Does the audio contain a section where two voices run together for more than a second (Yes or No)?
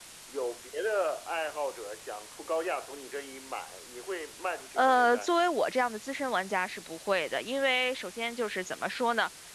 No